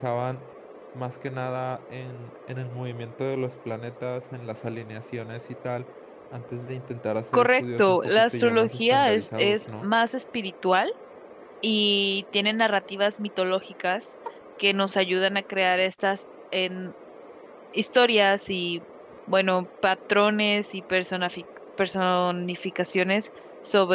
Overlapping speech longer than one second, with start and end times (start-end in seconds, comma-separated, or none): 7.3-9.9